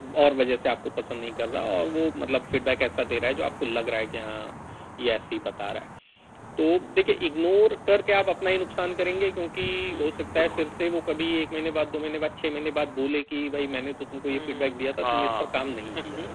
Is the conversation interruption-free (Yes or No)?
No